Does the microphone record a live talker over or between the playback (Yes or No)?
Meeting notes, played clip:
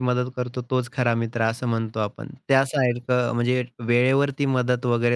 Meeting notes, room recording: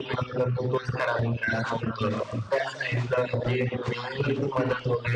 No